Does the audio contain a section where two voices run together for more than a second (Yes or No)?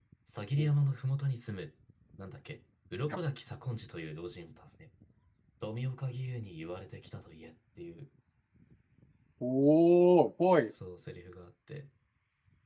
No